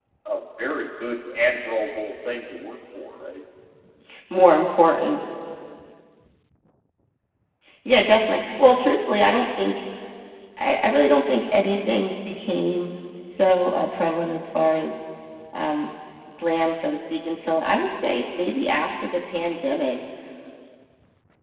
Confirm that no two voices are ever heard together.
Yes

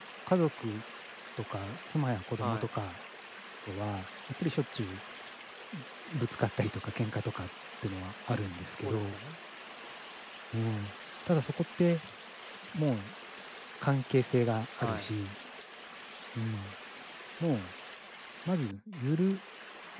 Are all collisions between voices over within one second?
Yes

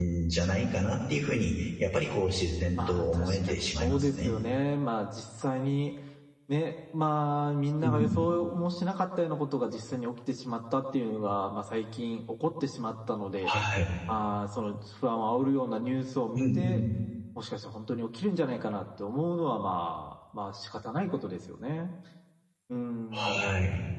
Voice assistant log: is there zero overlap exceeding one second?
No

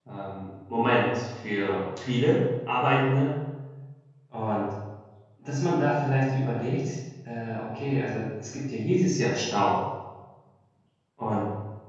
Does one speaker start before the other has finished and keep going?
No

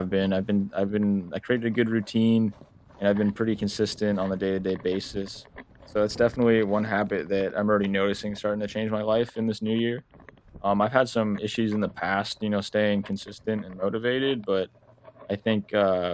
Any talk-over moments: No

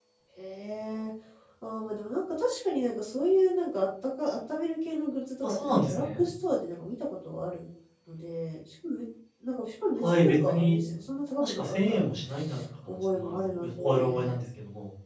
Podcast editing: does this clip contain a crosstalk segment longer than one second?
Yes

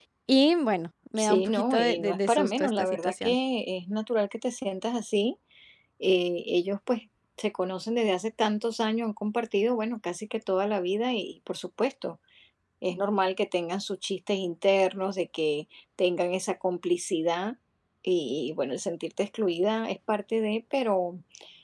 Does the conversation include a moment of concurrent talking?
Yes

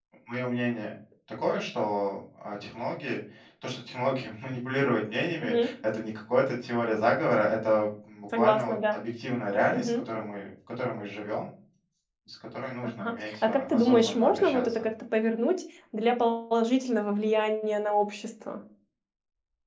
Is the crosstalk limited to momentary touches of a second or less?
No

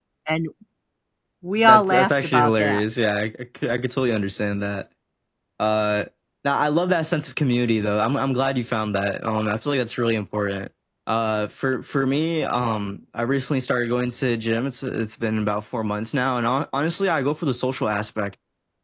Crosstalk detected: Yes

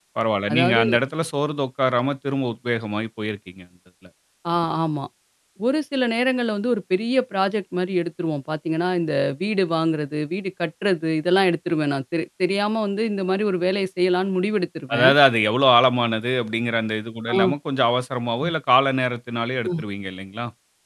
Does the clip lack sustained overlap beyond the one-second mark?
Yes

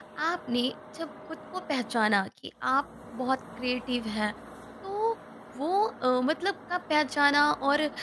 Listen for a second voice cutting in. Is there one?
No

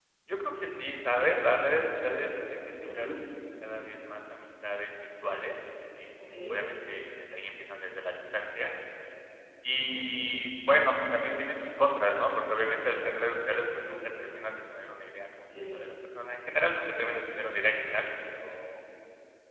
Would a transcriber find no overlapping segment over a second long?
Yes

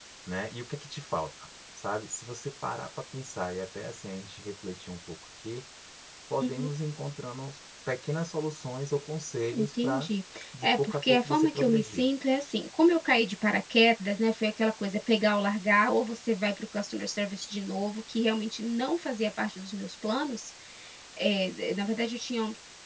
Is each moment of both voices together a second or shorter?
No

